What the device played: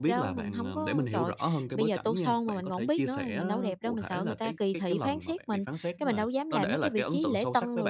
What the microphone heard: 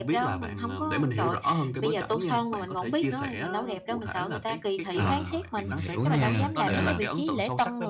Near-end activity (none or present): present